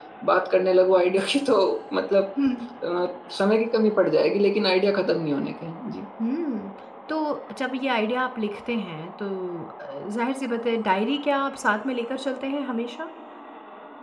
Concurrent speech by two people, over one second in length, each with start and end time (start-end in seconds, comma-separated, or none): none